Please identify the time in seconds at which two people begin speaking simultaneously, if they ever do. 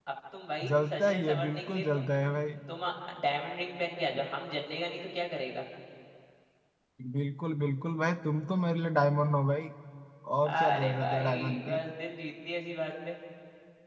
0.7 s

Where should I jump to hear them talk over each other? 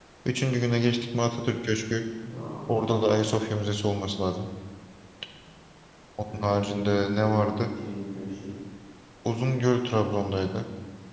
6.3 s

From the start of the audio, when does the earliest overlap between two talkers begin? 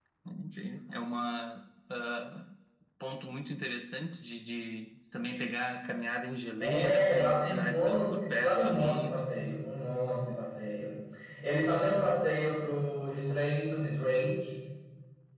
6.6 s

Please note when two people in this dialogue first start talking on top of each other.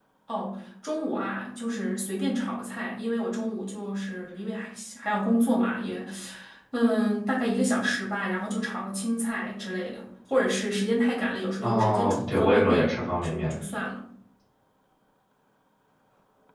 11.6 s

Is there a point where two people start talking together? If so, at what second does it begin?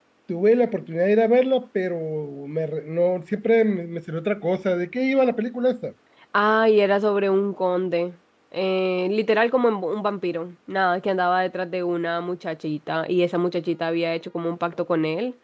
none

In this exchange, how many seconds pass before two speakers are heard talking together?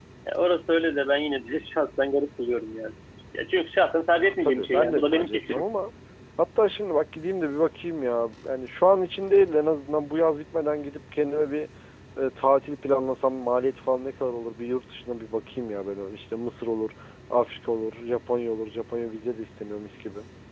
4.2 s

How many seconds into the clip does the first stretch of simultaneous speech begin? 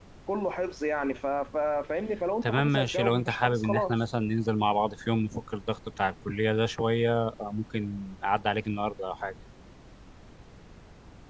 2.4 s

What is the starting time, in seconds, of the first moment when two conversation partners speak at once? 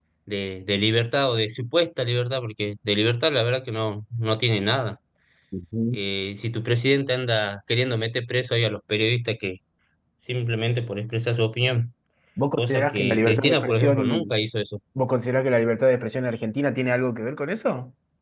12.6 s

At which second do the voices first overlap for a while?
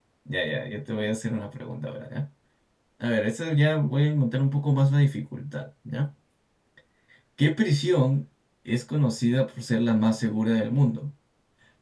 none

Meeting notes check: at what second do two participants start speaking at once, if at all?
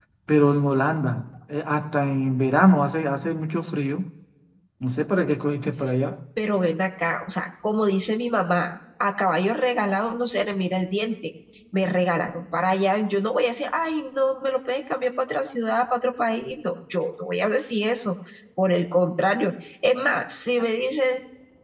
none

